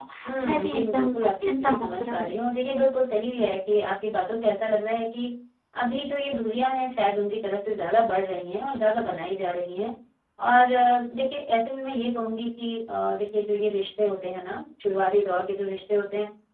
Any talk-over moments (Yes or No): Yes